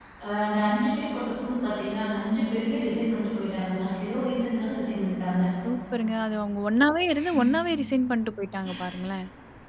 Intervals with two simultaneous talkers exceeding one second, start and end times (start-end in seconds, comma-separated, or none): none